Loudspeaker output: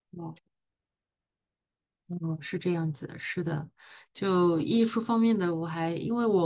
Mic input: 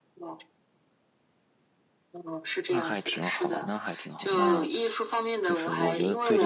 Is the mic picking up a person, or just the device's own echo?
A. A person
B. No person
A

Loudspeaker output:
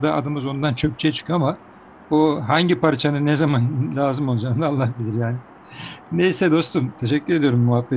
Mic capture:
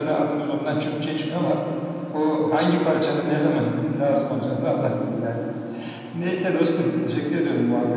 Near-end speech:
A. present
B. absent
B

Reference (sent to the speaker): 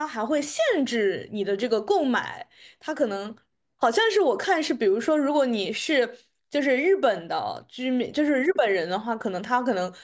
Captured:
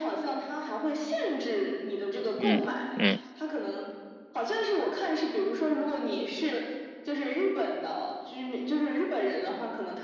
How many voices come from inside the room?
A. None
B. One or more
B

